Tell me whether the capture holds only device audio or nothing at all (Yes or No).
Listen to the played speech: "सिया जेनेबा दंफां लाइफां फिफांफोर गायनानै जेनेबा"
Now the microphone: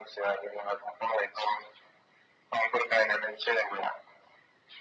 Yes